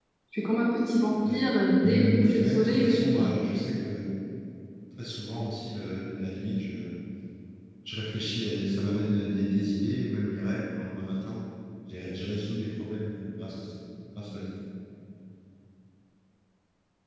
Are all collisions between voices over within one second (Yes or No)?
No